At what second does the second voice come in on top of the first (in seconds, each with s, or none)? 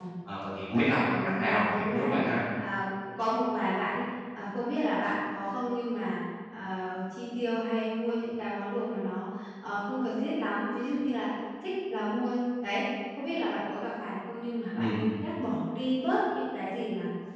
0.7 s